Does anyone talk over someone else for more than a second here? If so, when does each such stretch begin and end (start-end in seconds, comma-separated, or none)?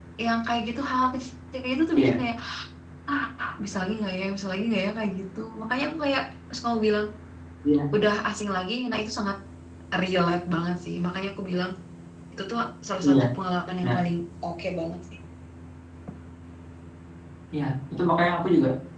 none